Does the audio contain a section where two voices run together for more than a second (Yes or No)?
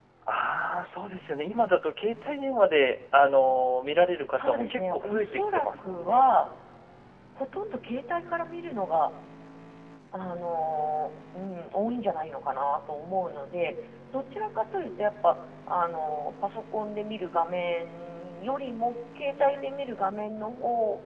Yes